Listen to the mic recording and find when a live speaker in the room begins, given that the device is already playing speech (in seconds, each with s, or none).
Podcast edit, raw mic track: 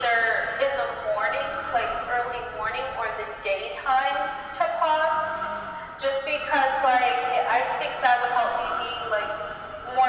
none